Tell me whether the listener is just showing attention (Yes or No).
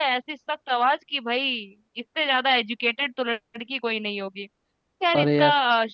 Yes